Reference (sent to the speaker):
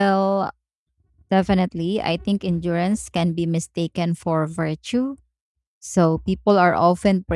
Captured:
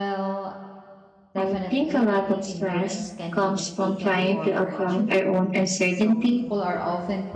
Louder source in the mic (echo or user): user